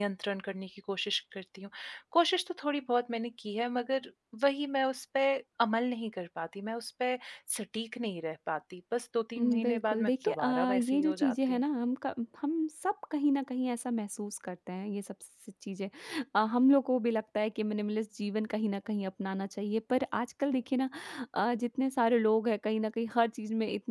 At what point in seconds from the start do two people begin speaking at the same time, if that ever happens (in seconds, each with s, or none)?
9.4 s